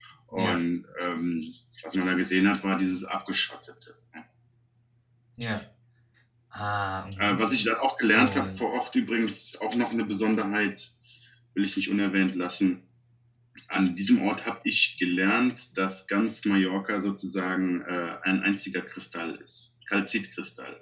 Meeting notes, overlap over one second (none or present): none